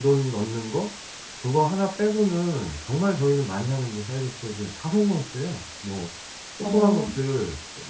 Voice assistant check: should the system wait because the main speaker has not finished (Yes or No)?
Yes